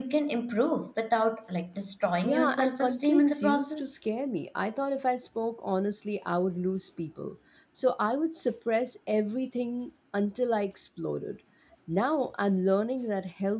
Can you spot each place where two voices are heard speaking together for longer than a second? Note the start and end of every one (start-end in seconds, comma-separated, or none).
2.2-3.9